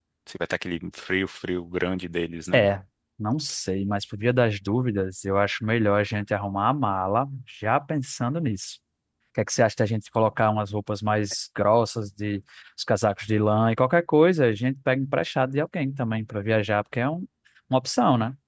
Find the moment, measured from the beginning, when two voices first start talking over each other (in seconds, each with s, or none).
none